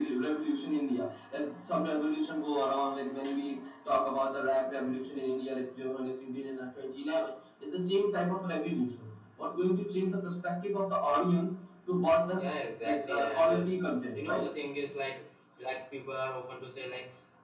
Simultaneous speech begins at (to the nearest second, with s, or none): 12 s